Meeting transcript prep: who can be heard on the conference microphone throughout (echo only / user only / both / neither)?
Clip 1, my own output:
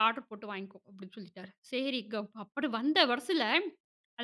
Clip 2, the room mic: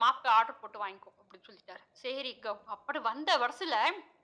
echo only